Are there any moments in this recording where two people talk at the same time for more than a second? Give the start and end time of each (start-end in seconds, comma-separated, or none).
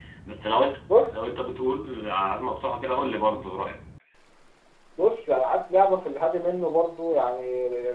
none